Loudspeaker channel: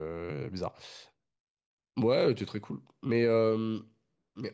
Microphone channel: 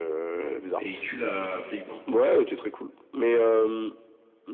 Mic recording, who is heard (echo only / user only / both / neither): both